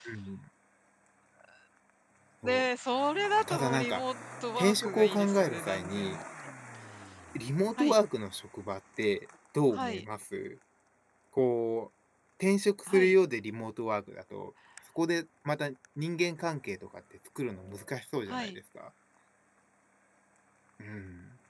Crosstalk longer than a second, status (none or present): present